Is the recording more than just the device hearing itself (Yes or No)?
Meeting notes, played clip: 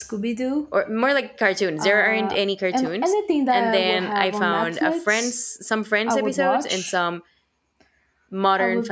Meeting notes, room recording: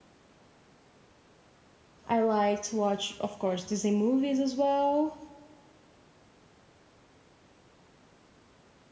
Yes